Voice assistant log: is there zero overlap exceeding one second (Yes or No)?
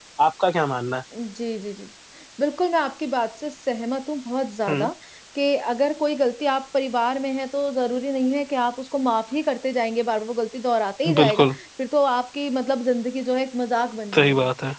Yes